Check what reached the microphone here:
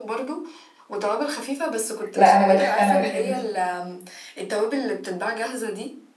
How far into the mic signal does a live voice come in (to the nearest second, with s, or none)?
2 s